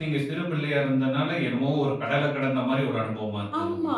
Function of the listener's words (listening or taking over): taking over